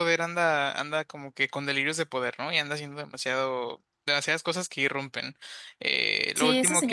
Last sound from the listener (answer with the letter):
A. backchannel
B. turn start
B